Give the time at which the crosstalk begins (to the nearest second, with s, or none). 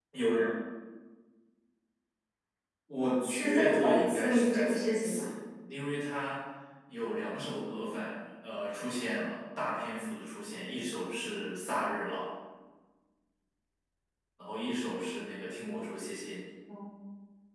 3 s